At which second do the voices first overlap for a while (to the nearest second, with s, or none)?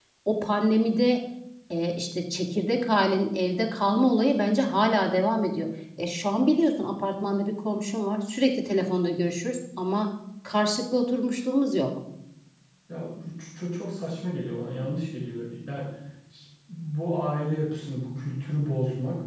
none